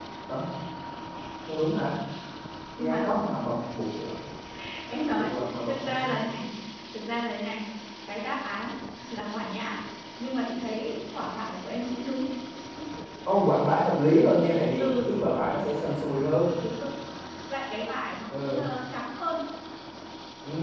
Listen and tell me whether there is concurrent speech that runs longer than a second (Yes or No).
No